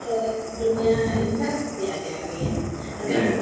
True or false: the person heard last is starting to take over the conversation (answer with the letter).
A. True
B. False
B